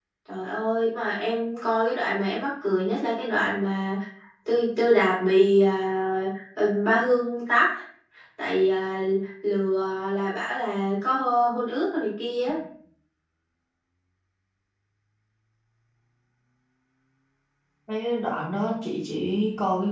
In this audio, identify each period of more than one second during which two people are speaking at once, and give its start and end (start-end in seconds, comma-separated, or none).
none